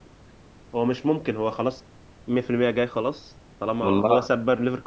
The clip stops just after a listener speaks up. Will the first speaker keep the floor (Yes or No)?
Yes